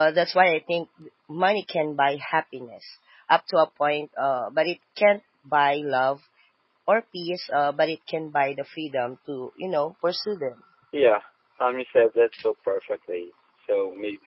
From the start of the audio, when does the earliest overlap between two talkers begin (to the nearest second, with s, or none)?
none